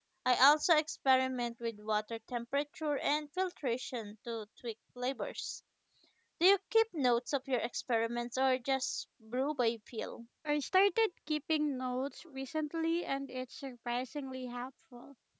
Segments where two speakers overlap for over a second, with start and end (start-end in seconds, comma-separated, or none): none